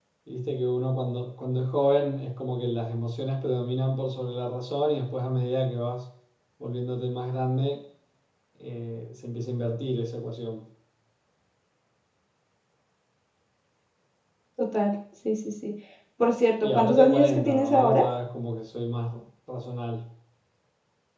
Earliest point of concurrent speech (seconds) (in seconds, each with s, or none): 16.6 s